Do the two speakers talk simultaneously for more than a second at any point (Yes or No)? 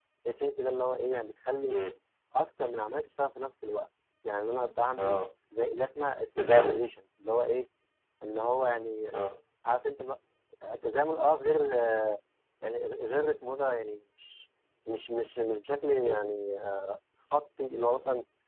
No